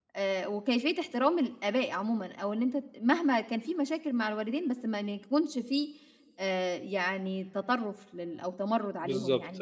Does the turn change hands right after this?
Yes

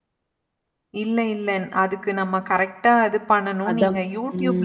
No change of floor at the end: Yes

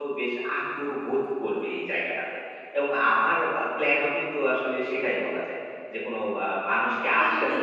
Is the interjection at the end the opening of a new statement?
Yes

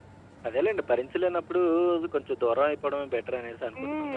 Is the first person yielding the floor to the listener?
Yes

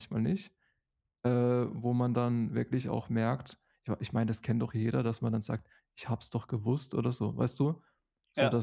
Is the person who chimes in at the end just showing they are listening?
Yes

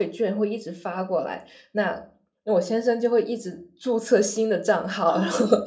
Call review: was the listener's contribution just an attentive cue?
No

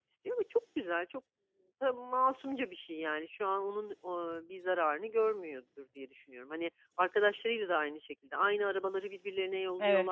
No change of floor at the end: No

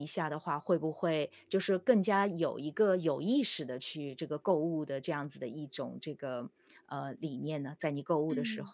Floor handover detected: Yes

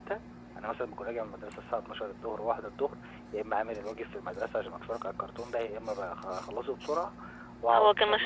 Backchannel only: No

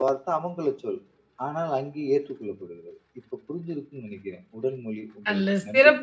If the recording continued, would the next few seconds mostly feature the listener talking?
Yes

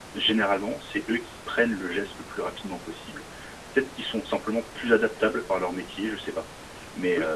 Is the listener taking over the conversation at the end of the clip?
Yes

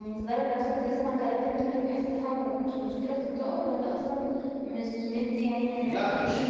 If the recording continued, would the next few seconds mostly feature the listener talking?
Yes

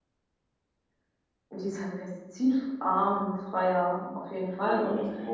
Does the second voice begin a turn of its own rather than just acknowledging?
Yes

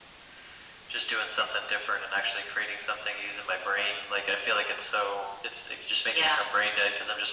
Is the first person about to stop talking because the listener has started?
No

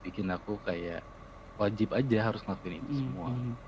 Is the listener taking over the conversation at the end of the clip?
Yes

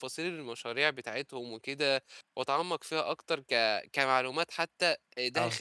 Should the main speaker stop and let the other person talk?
No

